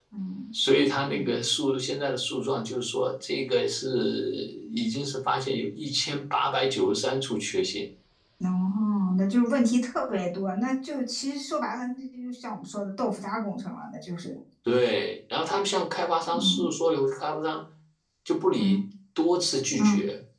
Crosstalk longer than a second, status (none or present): none